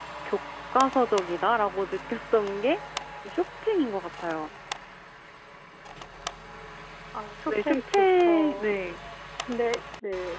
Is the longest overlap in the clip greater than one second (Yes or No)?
Yes